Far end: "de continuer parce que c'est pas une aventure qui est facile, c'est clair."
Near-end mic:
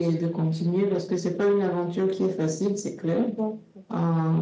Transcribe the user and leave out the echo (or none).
Mm.